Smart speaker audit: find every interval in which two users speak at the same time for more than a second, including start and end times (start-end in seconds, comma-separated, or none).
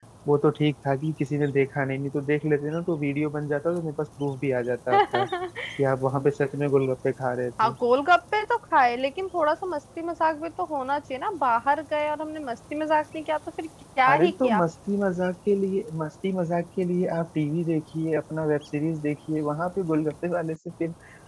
none